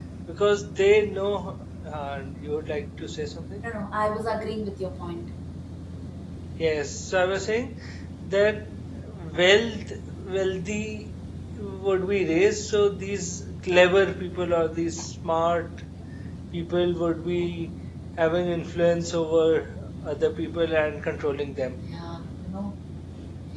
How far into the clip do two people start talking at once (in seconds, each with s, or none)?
none